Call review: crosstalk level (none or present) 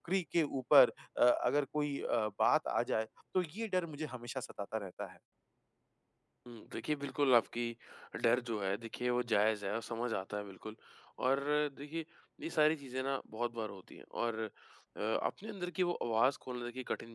none